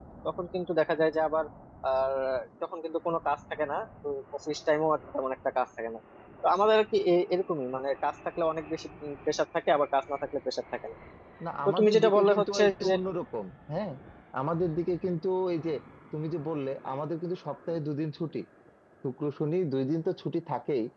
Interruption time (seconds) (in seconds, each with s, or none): 11.7 s